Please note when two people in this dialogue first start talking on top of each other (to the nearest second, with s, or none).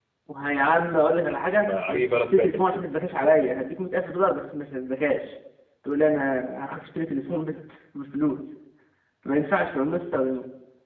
2 s